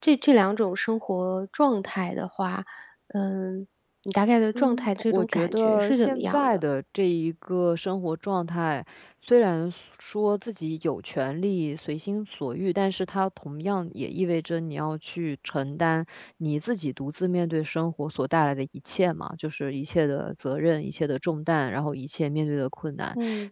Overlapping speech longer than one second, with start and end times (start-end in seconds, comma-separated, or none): 4.5-6.6